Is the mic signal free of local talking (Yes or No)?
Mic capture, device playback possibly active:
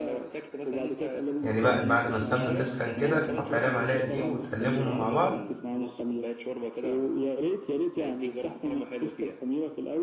No